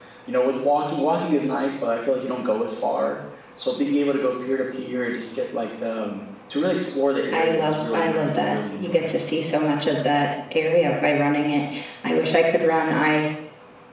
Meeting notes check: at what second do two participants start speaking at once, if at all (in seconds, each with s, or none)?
7.2 s